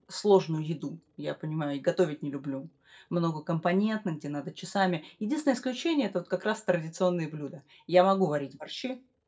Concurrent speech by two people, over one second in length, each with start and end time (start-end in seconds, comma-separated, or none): none